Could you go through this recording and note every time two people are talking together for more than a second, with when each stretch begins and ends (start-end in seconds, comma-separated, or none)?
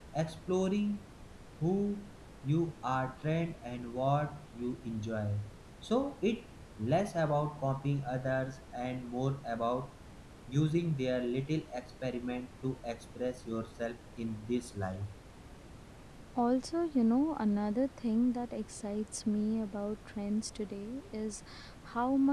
none